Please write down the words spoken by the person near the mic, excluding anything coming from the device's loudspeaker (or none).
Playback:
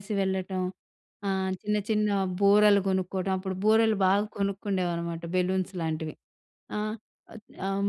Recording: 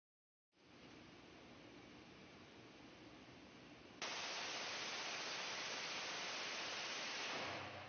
none